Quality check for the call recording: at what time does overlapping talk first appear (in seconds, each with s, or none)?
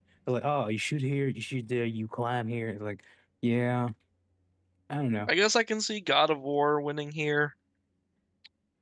none